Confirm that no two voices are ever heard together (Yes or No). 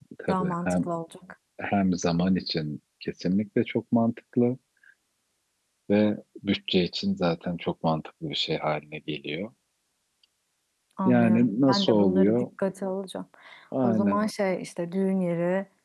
No